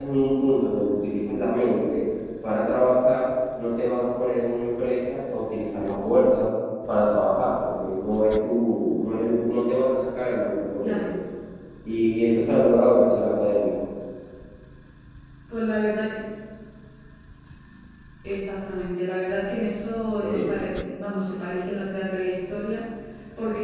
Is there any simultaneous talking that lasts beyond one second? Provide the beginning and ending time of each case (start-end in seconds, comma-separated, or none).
none